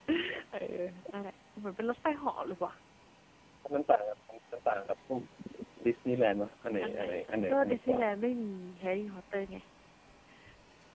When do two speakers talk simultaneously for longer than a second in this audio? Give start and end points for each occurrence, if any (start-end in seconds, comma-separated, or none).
6.8-8.0